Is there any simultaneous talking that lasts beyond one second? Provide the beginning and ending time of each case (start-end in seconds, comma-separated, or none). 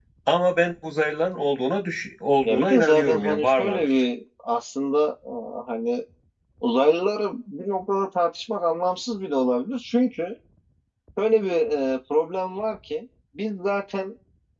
2.4-4.0